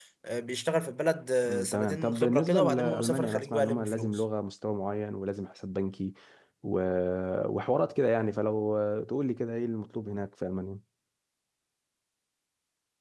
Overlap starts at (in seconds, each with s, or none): 1.4 s